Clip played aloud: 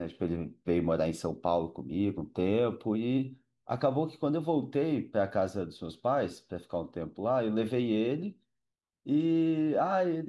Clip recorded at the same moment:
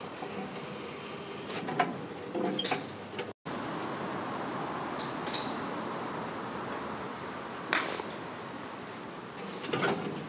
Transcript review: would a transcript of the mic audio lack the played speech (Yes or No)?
Yes